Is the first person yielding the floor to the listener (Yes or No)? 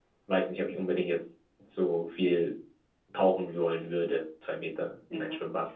Yes